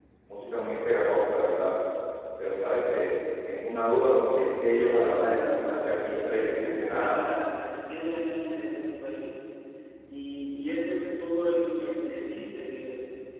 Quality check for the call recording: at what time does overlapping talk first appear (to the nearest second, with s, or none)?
5 s